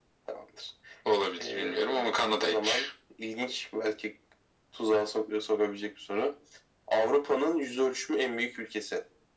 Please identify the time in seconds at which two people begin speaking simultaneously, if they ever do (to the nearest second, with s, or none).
1 s